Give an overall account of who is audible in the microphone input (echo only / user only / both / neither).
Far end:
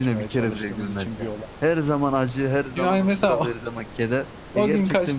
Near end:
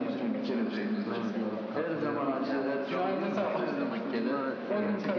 both